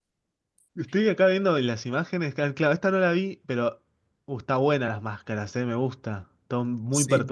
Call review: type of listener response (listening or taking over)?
taking over